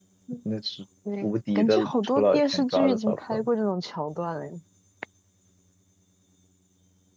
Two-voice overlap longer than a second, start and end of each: 1.2-3.4

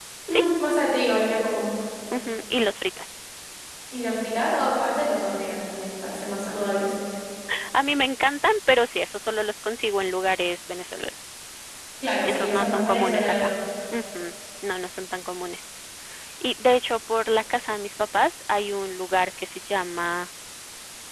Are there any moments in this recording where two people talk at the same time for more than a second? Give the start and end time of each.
12.2-13.5

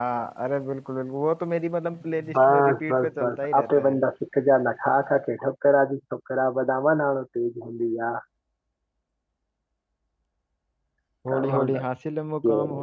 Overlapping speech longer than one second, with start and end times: 2.4-4.0

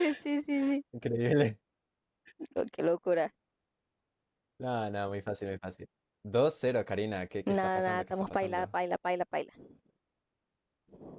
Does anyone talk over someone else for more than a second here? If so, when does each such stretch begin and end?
7.5-8.7

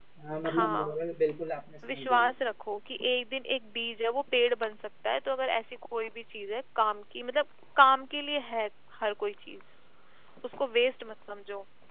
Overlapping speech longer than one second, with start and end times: none

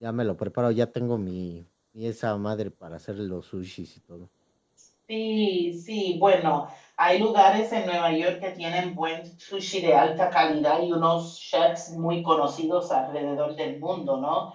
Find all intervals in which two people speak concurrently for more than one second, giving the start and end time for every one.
none

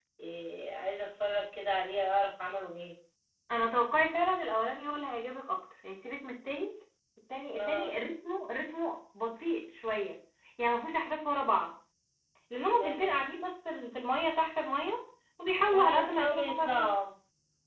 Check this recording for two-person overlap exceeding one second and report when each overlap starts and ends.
15.7-16.9

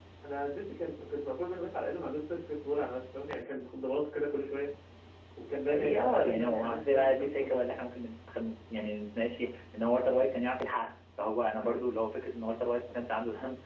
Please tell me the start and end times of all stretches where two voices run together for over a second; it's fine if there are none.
5.7-7.6

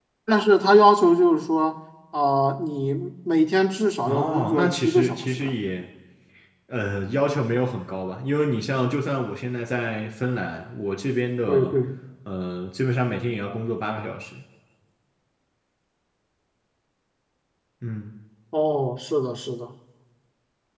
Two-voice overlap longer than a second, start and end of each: 4.0-5.5

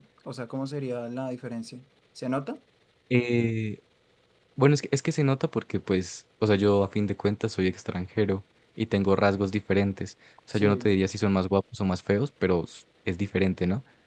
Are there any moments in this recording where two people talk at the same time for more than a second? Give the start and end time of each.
none

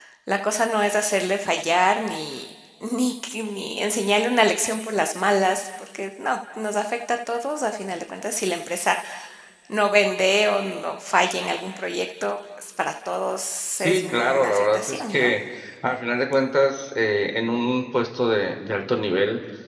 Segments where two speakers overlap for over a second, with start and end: 13.8-15.3

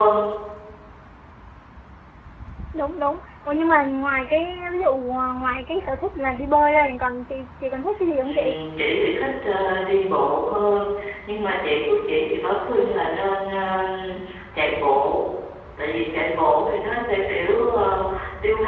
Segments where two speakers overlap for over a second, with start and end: none

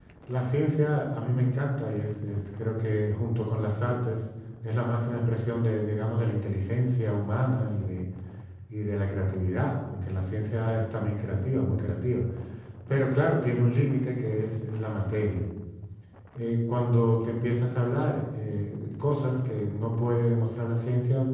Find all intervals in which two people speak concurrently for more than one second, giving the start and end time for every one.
none

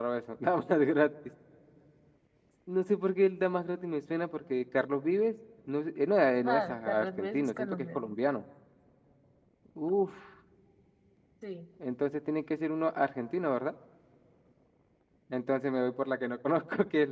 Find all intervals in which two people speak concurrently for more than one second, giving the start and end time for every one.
6.4-8.1

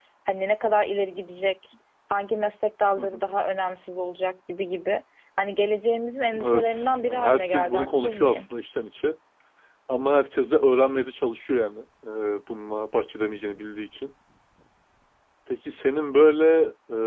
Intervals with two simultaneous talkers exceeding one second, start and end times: 6.4-8.5

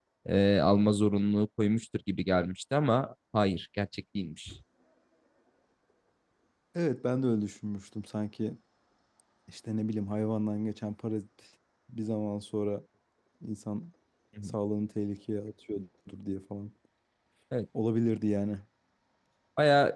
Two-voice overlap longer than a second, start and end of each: none

